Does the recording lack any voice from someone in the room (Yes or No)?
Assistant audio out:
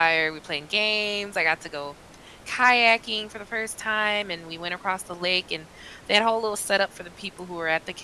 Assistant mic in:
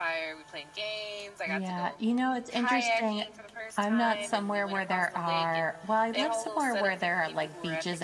No